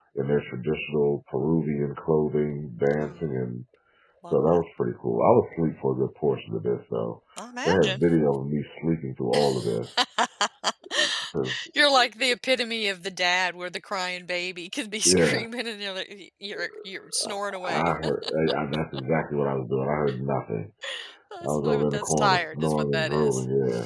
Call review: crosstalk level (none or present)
present